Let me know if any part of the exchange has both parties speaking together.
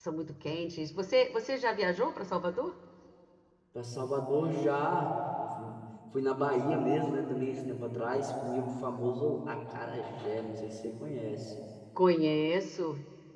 No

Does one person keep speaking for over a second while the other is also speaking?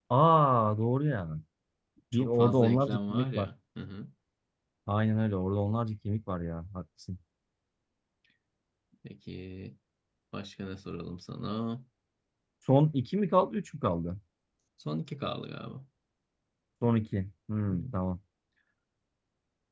Yes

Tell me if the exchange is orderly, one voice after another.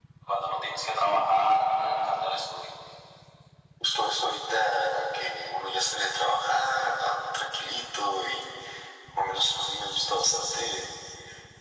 Yes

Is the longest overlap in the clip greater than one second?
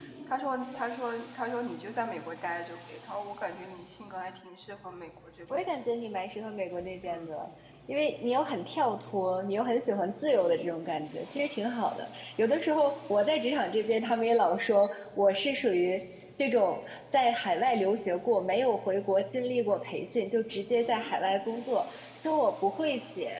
No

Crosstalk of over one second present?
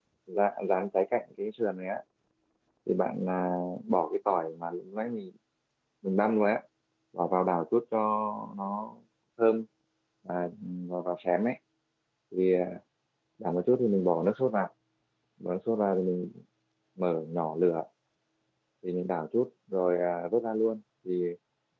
No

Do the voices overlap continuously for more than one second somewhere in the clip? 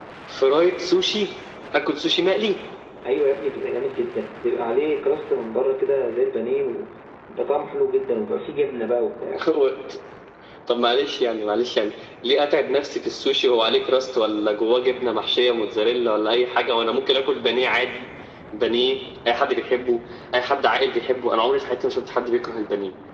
No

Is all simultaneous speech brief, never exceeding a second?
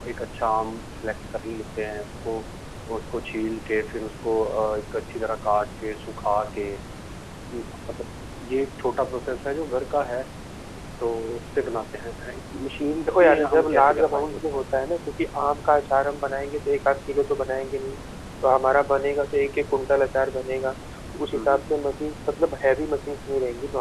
No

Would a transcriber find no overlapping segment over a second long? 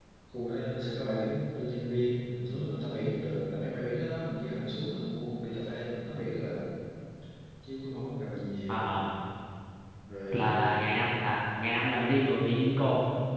Yes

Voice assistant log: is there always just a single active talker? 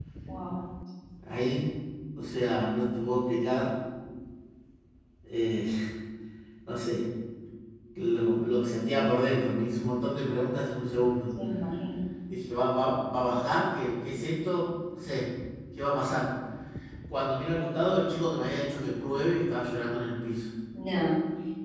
Yes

